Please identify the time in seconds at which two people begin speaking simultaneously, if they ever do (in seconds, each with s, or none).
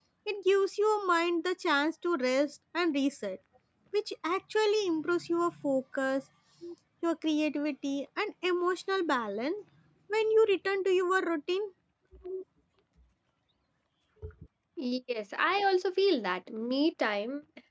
none